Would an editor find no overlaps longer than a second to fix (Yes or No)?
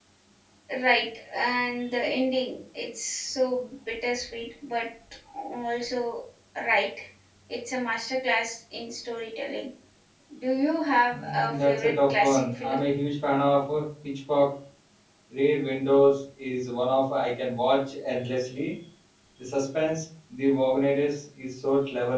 No